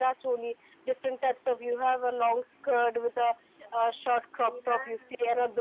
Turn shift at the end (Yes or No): No